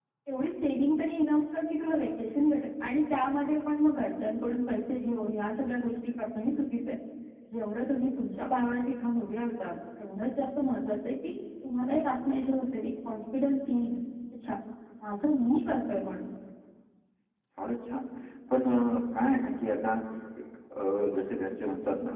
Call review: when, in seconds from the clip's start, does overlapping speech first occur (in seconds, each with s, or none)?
none